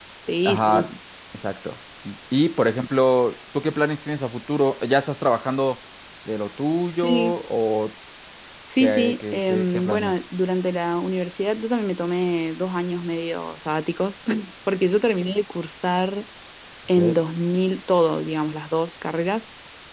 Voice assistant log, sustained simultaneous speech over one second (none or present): present